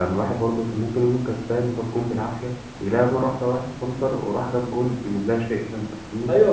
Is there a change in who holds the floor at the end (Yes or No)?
Yes